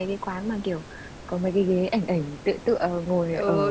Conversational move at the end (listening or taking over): taking over